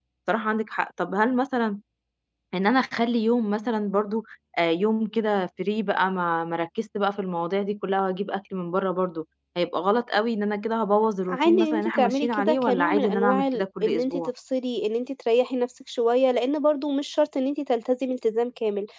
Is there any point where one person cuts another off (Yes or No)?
Yes